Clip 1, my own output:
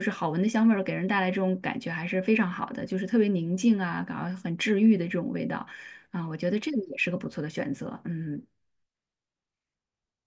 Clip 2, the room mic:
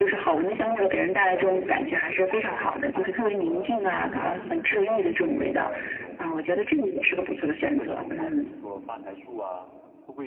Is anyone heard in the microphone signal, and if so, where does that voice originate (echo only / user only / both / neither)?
both